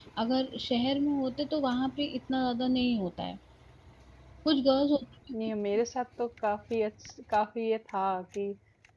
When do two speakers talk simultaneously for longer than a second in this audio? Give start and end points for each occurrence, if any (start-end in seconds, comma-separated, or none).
none